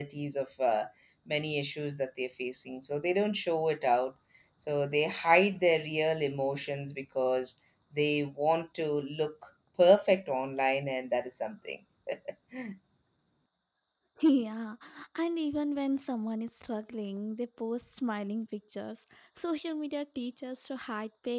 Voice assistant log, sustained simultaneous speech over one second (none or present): none